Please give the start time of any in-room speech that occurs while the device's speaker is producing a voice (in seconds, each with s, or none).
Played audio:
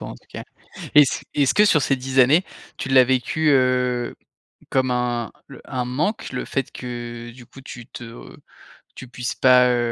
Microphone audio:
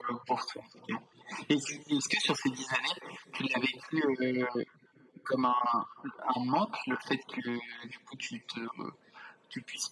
none